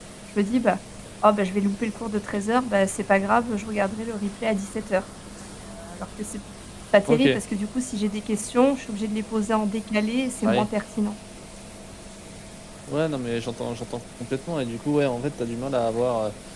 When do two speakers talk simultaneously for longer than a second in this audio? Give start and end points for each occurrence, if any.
none

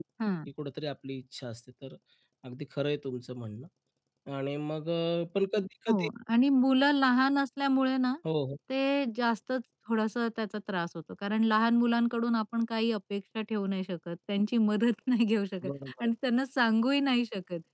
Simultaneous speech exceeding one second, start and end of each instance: none

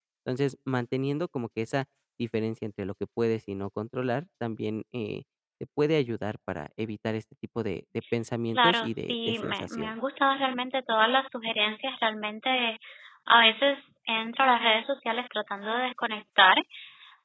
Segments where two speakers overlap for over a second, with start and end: 8.6-9.9

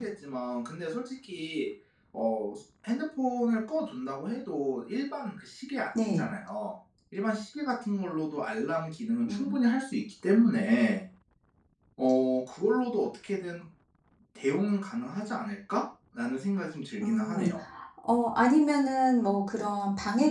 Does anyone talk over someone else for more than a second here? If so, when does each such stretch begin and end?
none

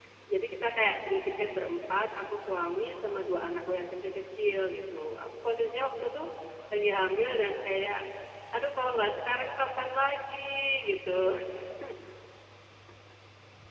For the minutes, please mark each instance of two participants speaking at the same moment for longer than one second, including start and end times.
none

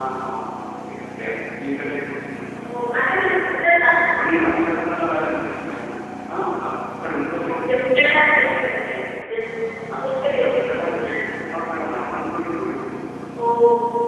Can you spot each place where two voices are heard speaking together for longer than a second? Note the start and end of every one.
10.0-11.2

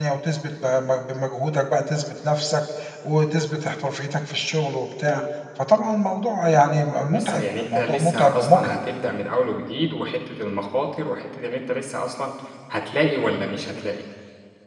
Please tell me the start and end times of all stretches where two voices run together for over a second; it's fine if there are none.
7.1-8.8

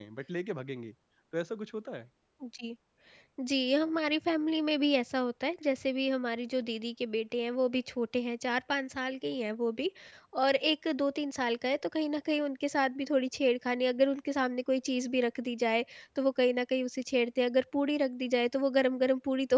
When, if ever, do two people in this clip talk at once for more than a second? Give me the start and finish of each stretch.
none

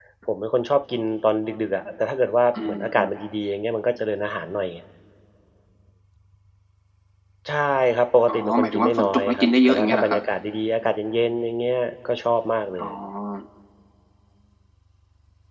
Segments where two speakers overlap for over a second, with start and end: 8.3-10.2

